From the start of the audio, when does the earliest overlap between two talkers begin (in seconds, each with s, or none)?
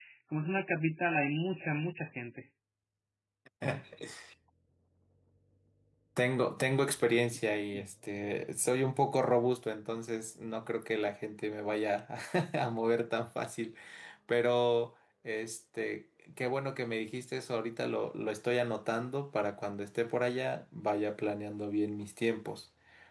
none